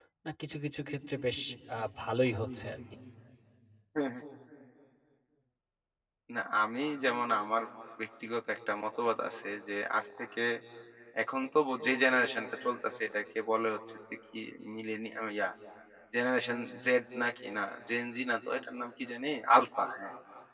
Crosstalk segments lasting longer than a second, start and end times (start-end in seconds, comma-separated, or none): none